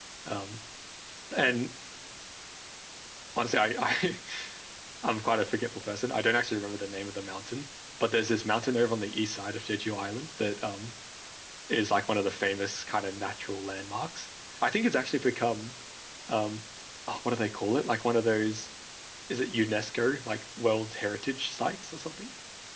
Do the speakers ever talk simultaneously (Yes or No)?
No